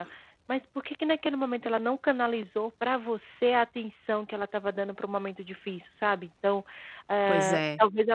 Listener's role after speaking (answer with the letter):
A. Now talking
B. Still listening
B